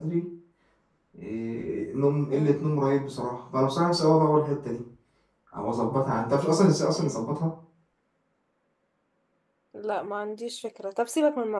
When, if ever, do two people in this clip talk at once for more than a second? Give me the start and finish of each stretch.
none

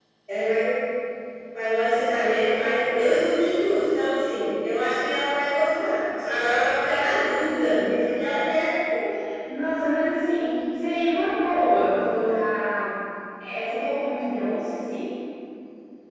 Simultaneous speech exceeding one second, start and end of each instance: none

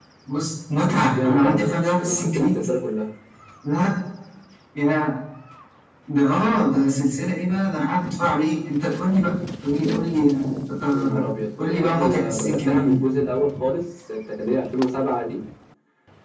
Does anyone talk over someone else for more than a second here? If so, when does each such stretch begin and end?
1.2-2.5, 11.6-13.0

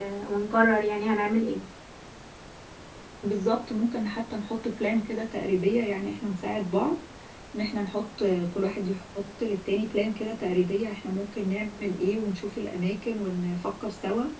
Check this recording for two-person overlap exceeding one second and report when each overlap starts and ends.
none

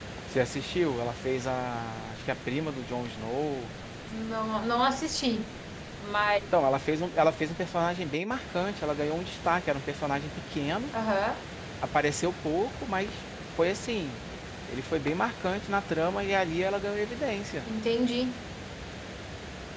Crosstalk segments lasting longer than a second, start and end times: none

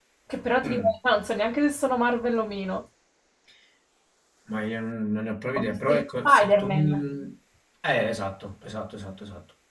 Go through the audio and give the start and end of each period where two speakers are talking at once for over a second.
5.6-6.9

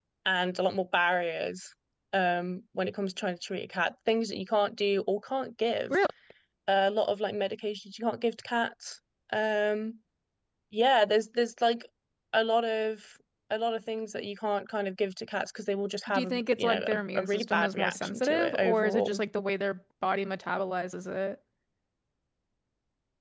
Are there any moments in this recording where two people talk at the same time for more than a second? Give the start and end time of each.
16.1-19.2

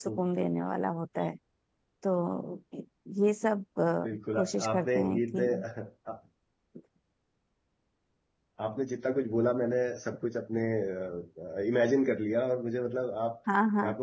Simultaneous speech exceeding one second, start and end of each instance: 4.1-5.5

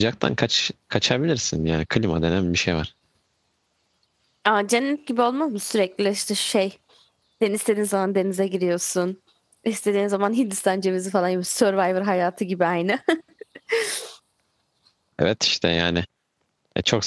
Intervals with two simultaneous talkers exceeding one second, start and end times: none

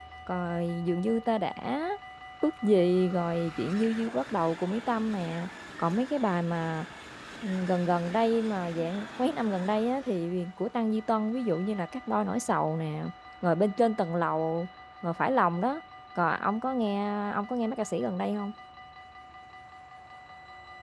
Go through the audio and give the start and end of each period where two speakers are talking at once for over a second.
none

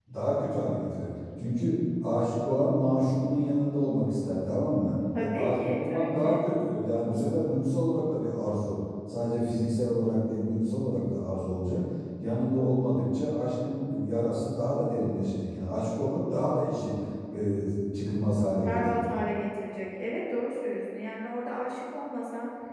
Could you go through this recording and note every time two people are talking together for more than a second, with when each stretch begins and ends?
5.2-6.5

